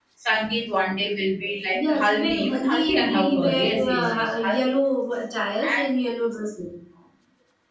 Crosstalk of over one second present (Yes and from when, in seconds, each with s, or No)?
Yes, from 1.7 s